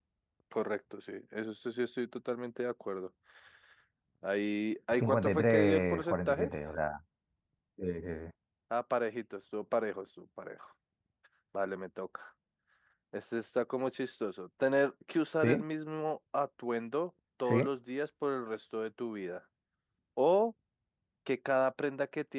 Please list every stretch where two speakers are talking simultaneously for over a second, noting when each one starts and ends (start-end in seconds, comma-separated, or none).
5.0-6.5